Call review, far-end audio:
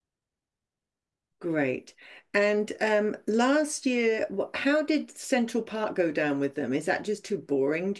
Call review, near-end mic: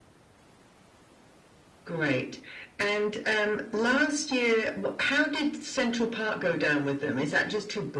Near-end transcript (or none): none